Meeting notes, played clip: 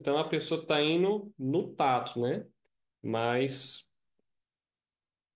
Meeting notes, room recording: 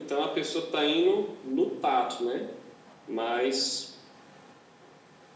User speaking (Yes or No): No